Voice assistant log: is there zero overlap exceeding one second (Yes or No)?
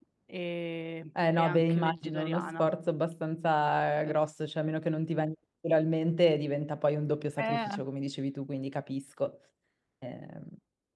No